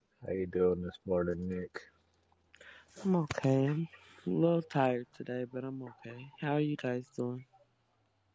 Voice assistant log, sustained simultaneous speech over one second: none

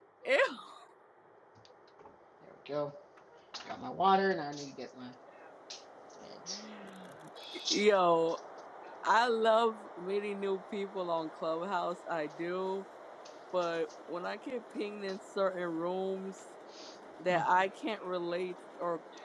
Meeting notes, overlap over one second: none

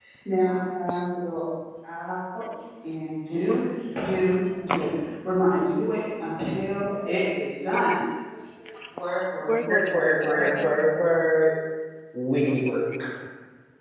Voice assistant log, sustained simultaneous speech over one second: present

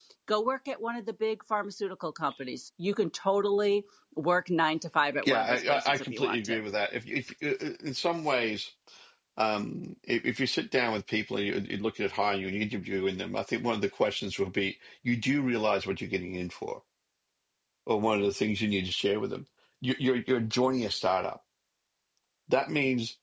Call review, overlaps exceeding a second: present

